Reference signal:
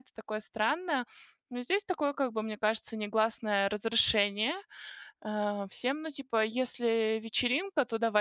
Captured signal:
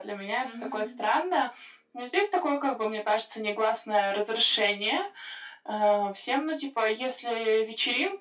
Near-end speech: present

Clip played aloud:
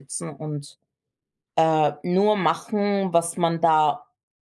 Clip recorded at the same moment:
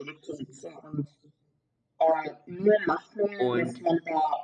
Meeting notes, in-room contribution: present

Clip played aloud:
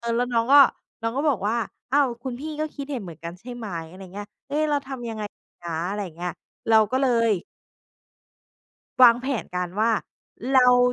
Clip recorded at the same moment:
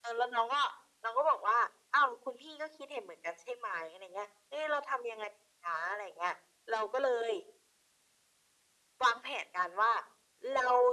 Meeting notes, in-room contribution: none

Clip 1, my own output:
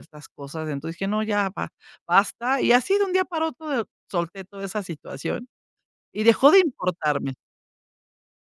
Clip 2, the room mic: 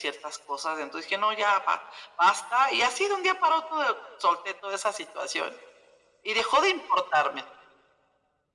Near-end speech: none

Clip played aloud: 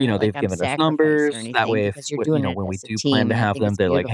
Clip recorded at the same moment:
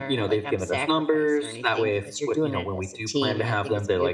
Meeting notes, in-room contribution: none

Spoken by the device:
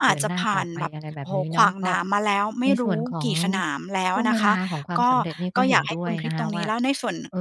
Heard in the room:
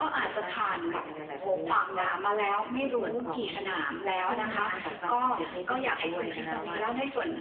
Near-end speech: none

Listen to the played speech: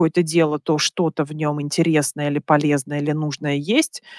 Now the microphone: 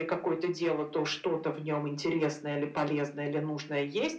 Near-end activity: none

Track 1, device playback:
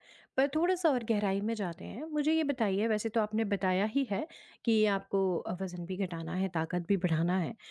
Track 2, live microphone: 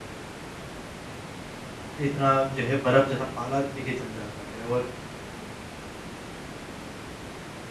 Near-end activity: present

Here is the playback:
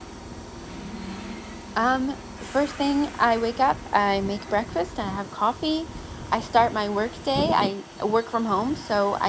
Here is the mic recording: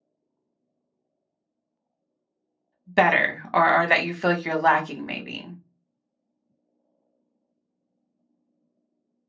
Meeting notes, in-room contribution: present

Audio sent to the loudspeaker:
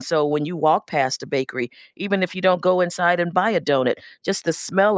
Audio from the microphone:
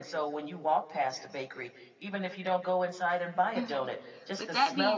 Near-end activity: present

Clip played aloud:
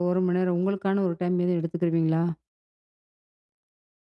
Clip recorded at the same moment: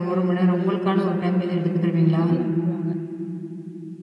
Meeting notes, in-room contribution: present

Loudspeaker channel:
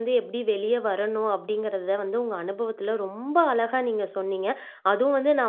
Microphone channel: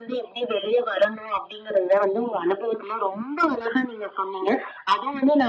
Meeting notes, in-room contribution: none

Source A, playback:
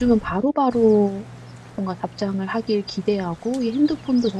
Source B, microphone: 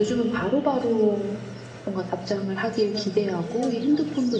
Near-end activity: present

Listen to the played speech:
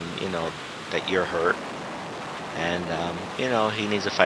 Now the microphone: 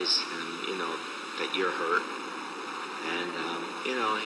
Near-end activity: none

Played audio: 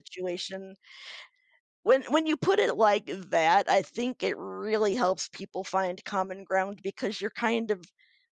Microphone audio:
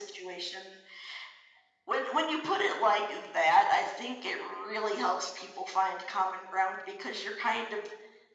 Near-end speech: none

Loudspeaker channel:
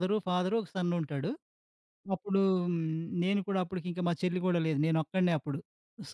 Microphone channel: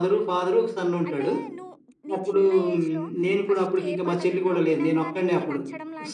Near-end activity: present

